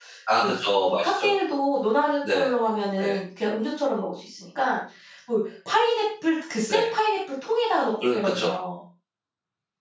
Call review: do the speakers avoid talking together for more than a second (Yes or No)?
Yes